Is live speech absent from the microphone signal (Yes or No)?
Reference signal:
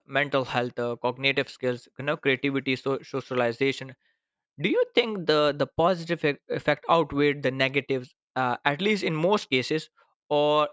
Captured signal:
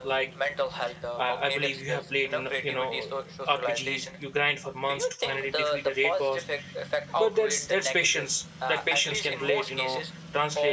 No